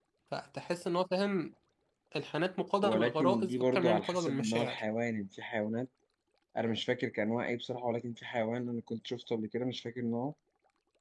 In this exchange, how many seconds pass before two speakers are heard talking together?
2.8 s

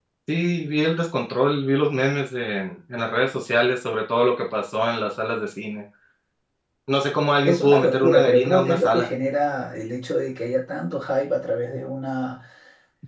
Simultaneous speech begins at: 7.4 s

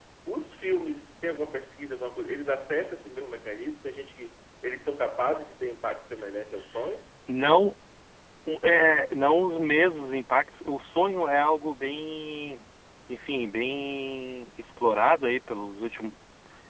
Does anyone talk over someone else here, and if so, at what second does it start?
none

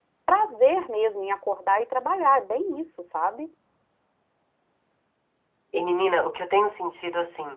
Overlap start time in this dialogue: none

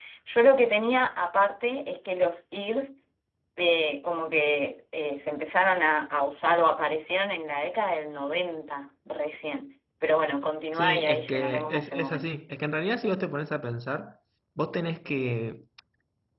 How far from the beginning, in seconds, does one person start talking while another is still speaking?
10.7 s

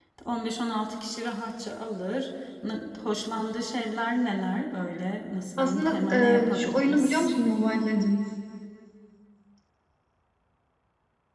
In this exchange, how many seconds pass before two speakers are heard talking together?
5.6 s

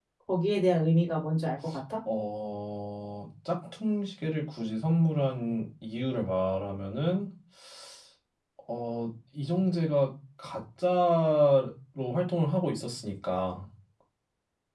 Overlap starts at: none

